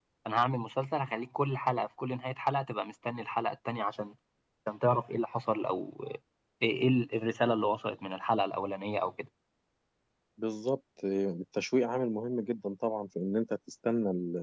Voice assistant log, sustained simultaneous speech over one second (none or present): none